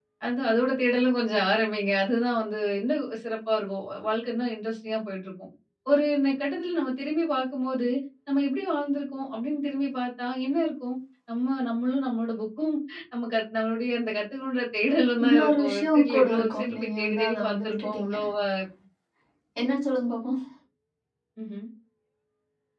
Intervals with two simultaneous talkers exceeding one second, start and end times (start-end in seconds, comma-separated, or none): 15.2-18.1